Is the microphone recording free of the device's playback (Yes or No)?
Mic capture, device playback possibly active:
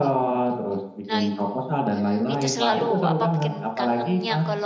No